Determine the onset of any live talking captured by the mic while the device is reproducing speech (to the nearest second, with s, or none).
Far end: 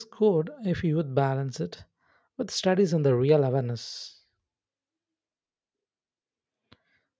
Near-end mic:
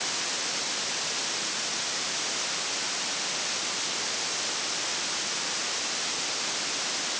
none